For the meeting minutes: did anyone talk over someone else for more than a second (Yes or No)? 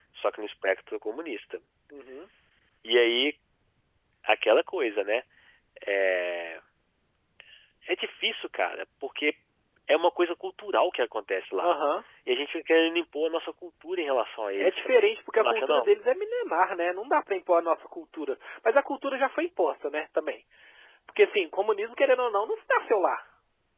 Yes